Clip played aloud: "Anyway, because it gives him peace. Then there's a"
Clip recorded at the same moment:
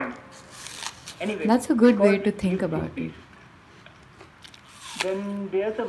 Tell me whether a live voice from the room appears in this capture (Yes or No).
Yes